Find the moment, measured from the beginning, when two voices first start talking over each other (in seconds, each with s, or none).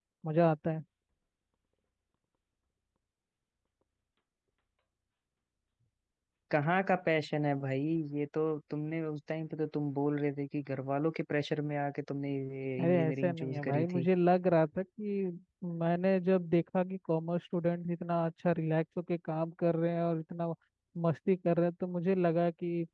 12.8 s